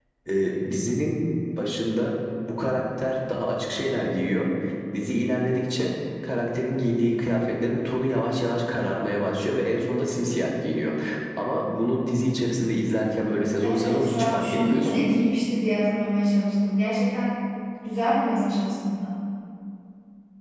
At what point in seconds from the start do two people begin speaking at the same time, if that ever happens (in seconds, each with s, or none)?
13.6 s